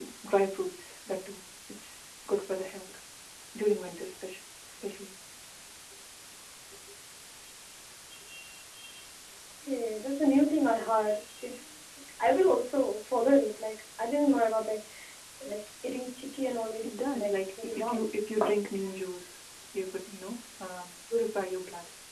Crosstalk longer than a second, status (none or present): present